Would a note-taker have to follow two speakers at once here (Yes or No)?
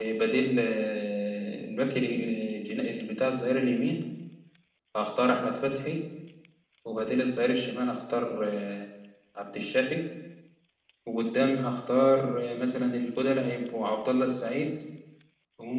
No